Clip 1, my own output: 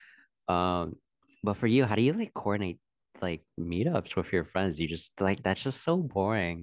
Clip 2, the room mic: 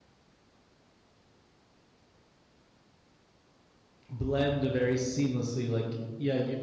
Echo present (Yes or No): No